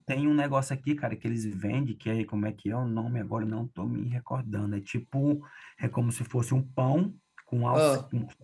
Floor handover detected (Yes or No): No